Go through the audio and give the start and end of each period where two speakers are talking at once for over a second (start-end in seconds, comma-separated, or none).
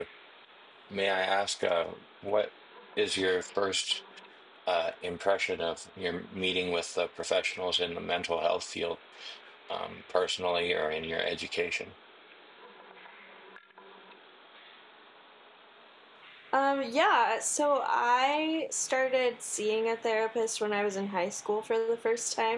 none